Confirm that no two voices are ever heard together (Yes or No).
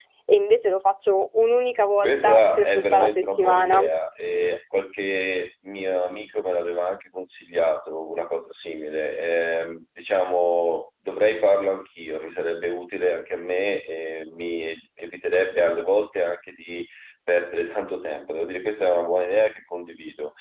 No